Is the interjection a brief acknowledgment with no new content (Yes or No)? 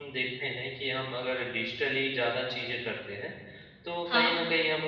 Yes